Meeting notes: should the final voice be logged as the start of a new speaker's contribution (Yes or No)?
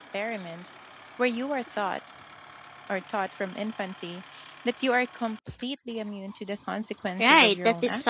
Yes